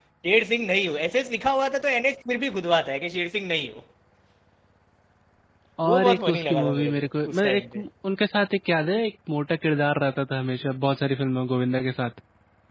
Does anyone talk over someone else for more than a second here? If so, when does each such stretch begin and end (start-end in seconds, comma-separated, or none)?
5.9-7.8